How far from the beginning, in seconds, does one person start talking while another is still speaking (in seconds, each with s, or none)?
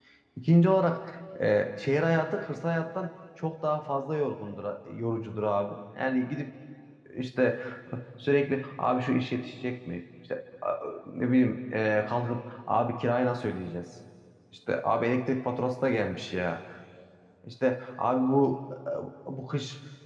none